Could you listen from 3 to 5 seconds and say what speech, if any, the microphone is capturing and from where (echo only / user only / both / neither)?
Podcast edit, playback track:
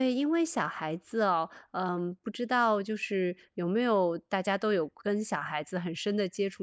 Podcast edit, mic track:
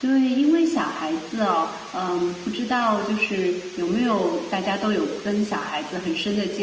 echo only